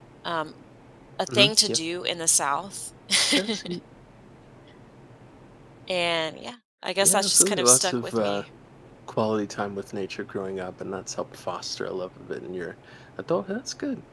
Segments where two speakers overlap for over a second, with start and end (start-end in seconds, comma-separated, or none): 7.0-8.4